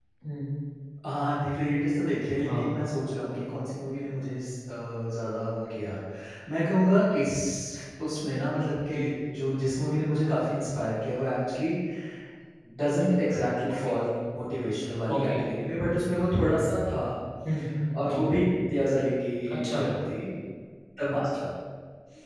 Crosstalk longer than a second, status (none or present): none